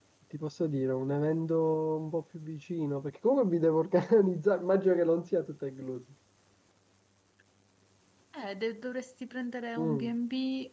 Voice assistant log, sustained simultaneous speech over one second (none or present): none